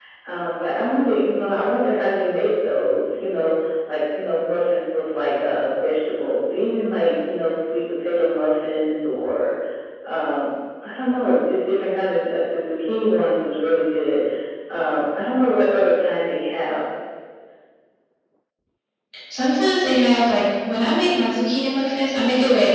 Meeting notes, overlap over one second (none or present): none